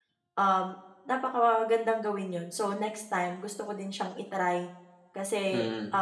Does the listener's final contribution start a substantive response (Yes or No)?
No